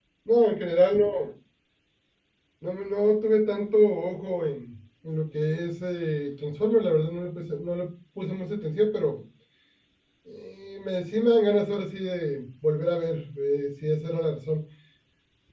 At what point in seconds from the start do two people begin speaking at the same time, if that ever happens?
none

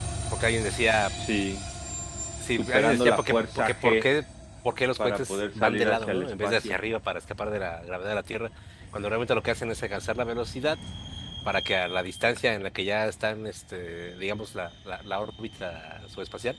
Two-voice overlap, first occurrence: 2.6 s

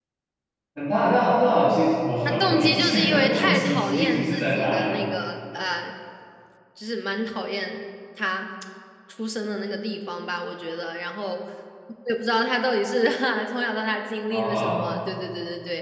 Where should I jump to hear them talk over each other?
2.4 s

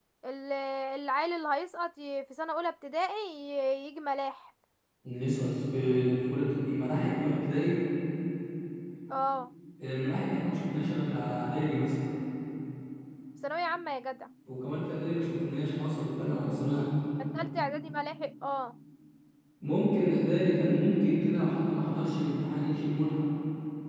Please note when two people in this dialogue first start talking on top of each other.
none

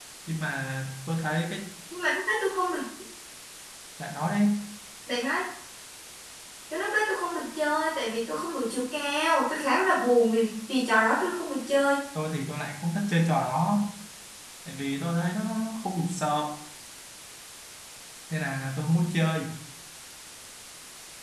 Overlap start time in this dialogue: none

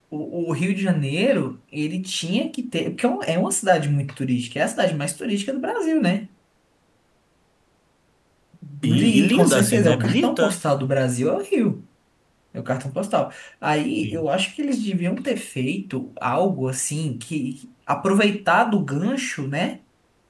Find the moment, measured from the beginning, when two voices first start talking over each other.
8.8 s

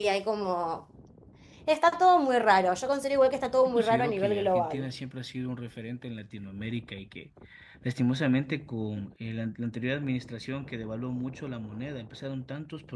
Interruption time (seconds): 3.6 s

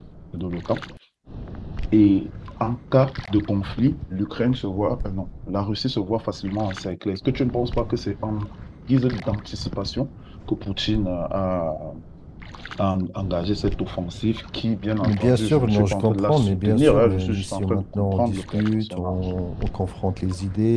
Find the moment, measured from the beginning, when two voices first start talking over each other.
15.0 s

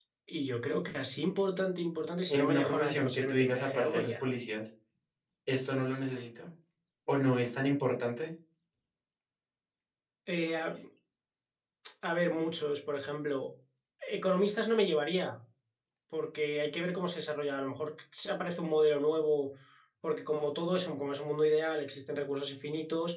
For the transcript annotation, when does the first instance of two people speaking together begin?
2.3 s

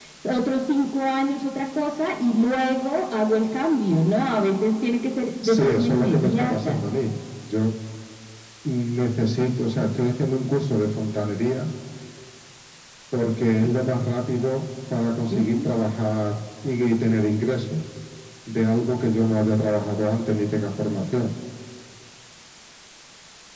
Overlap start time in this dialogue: 5.4 s

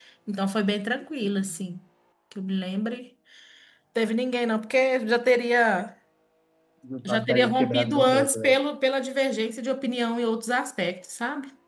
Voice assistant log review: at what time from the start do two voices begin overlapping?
7.1 s

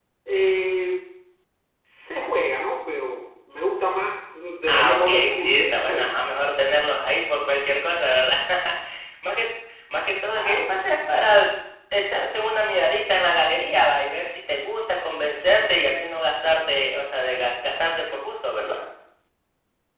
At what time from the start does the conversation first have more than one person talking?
4.7 s

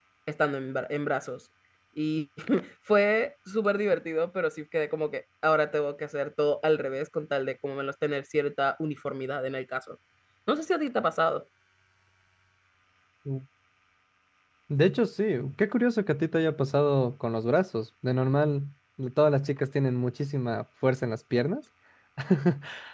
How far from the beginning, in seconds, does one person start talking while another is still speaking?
none

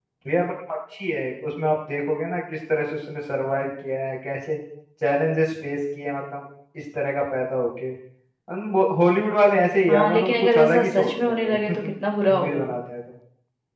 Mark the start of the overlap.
9.9 s

